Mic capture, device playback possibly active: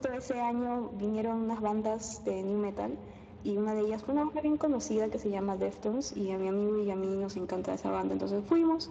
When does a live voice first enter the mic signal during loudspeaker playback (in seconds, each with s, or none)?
none